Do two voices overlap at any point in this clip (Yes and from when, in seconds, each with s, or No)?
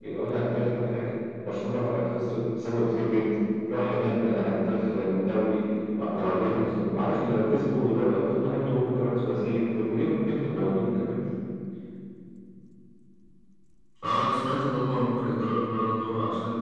No